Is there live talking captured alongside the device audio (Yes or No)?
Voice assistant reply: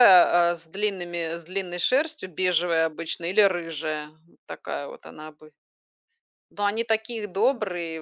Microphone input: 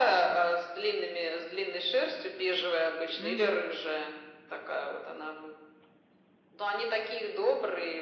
Yes